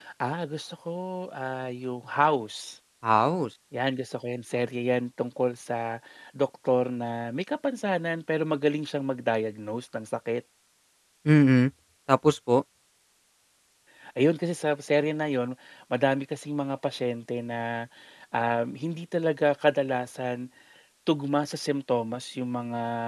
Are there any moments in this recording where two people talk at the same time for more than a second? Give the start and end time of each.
none

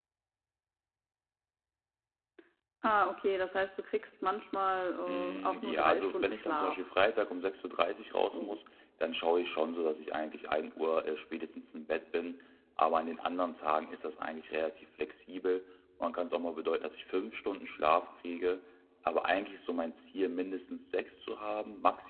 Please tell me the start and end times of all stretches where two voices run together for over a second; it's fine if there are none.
5.1-6.8

